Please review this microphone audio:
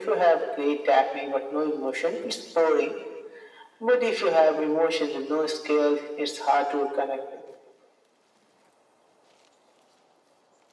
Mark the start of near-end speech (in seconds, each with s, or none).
none